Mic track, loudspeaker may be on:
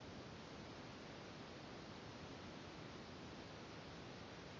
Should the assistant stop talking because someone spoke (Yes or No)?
No